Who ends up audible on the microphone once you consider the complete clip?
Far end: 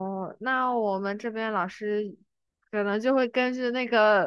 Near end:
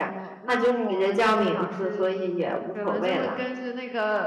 both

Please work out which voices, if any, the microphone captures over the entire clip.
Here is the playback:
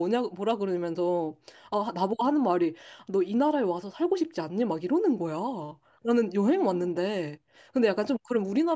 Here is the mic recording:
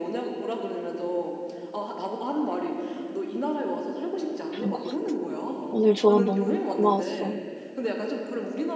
both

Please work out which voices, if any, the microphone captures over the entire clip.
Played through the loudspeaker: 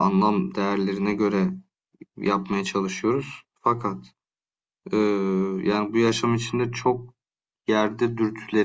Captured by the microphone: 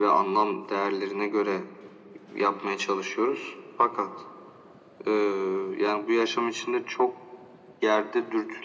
echo only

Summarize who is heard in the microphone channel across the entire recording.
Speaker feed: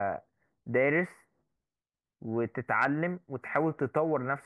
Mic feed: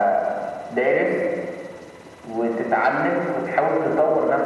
echo only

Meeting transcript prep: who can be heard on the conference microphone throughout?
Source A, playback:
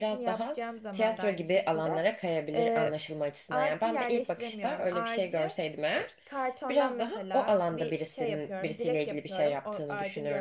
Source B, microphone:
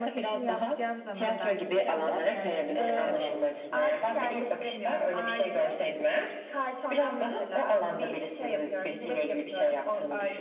both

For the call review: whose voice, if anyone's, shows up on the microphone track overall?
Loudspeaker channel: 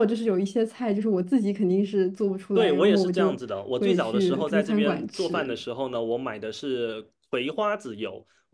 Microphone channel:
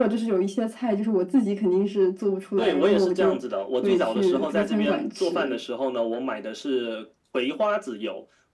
echo only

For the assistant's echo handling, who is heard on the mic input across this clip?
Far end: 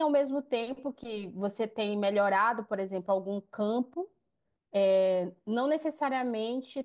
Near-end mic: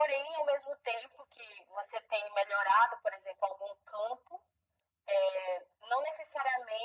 echo only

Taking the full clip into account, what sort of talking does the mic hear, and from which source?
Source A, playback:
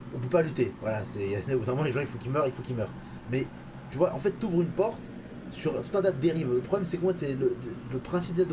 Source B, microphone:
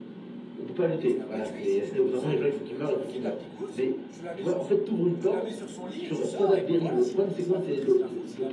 both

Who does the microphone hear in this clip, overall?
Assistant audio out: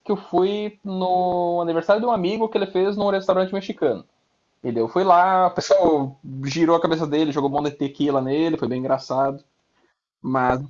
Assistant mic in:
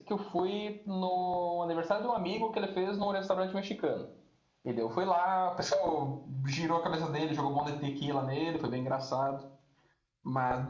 echo only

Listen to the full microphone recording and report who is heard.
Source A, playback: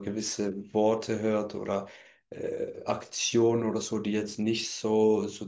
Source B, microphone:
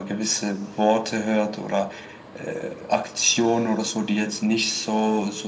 echo only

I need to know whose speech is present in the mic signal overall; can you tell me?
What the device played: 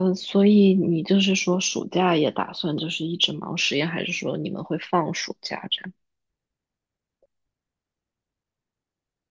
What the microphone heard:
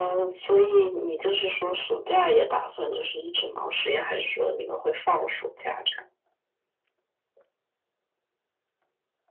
echo only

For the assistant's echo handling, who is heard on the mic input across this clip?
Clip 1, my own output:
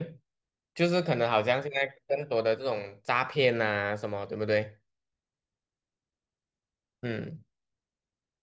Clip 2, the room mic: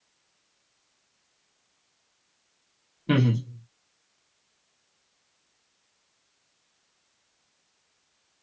user only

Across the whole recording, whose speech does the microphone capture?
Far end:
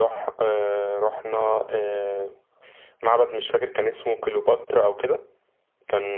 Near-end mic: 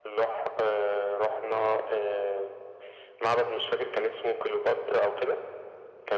echo only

